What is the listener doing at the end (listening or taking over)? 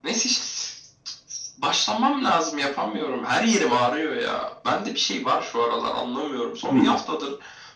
listening